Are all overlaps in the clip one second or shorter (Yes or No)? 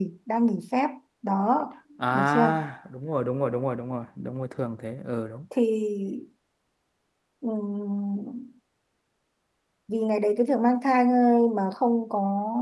Yes